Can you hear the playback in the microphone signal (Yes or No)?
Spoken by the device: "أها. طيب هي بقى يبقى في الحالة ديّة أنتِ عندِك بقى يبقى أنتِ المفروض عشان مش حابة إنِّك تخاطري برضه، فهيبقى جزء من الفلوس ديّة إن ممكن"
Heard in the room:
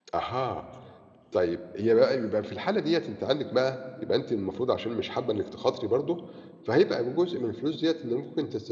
Yes